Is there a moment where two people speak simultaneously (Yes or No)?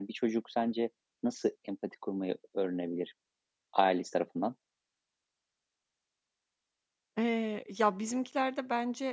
No